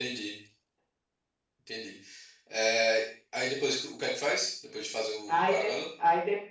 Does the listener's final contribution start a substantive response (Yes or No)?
Yes